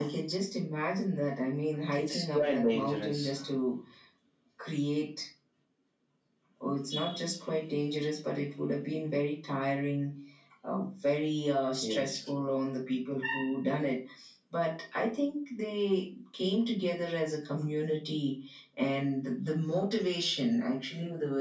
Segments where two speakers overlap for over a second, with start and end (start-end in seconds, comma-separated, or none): 1.9-3.3